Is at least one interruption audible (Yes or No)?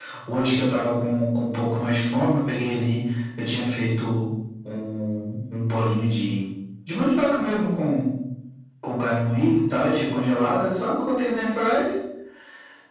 No